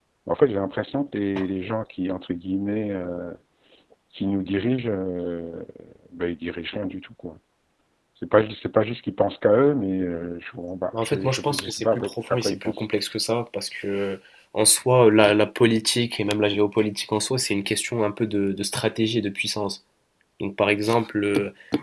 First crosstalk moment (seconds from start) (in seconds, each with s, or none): 10.9 s